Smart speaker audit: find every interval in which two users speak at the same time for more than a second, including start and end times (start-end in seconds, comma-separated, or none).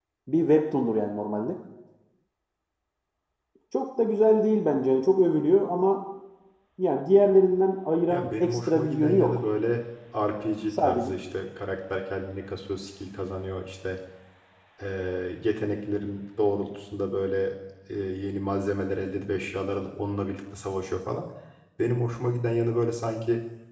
8.1-9.4